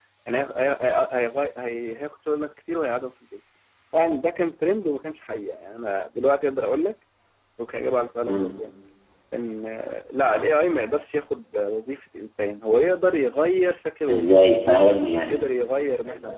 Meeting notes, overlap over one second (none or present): none